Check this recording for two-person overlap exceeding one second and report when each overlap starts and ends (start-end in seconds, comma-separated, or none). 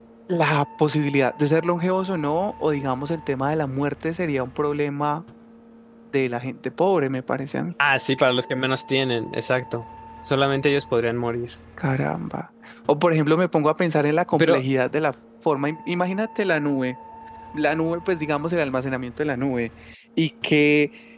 none